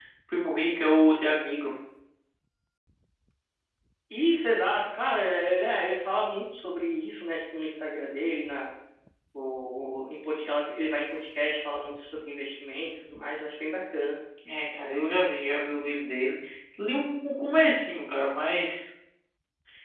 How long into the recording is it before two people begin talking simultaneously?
none

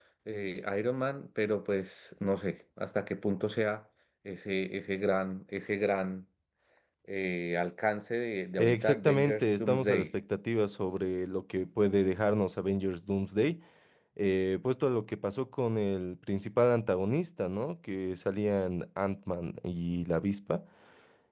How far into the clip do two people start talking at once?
8.6 s

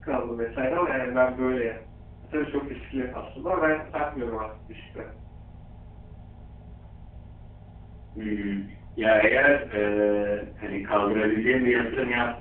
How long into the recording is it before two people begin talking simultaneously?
none

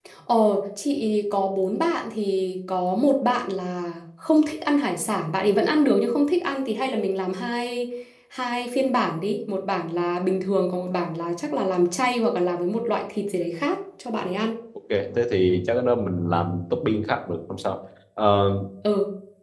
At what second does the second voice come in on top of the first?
none

